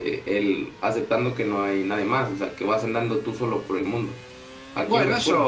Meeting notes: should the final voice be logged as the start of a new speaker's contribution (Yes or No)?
Yes